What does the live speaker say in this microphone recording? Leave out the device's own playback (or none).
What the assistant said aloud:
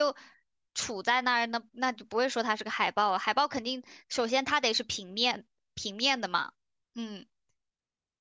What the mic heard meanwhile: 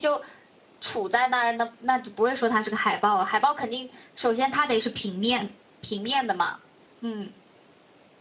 none